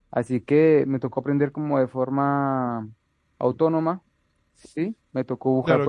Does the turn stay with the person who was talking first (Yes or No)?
No